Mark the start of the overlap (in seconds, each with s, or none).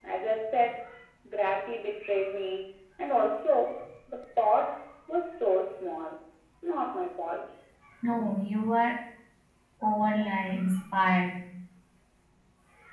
none